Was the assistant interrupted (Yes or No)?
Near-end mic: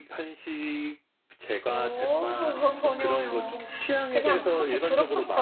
Yes